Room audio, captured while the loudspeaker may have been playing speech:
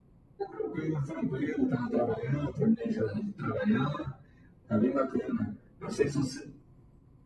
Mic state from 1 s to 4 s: echo only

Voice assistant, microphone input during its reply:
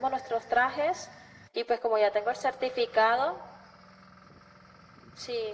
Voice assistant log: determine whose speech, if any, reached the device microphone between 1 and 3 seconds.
echo only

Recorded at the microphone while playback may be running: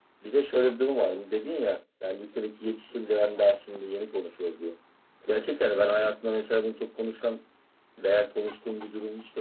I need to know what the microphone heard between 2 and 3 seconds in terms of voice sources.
echo only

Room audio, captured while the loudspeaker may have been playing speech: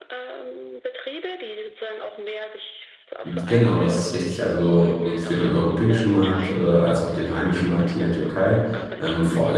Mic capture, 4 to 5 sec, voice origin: both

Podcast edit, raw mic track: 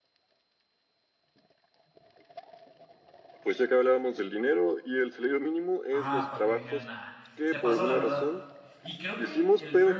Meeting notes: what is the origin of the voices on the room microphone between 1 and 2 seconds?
neither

